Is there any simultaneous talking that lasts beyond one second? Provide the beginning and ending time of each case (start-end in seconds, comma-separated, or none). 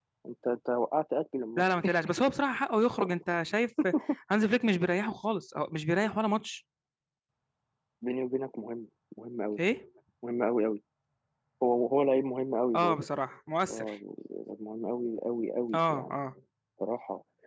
none